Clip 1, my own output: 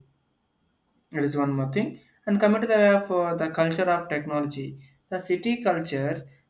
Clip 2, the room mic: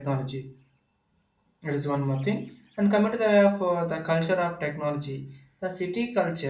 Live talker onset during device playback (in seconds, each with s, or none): none